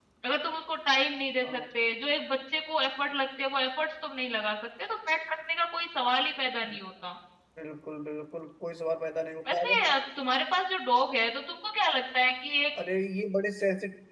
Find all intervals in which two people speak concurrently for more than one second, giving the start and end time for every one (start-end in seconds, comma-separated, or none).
none